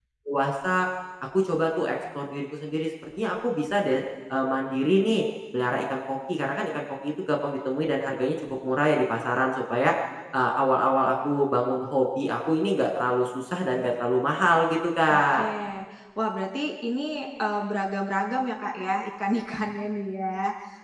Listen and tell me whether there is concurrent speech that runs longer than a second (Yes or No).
No